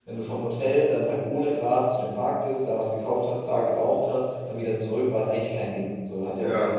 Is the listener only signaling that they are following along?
Yes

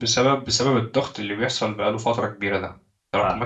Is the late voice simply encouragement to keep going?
Yes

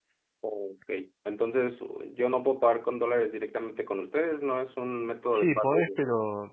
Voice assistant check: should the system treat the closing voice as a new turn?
Yes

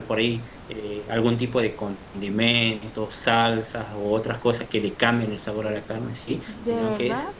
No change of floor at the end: Yes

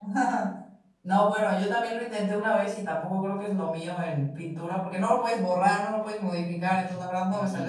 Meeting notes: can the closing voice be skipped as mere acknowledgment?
Yes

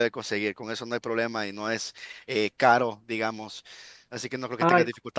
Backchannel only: Yes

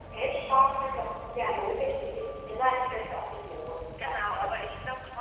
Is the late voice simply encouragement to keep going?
No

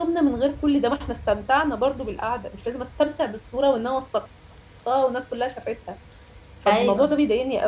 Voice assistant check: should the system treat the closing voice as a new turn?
No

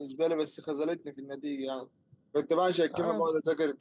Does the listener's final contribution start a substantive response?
No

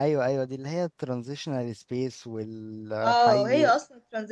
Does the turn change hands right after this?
Yes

